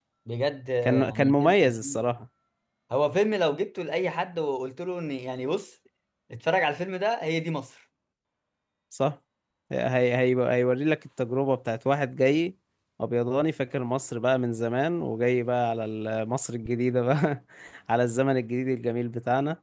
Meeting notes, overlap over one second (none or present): present